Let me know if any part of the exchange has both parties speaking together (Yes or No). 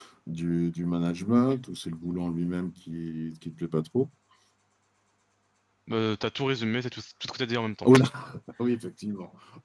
No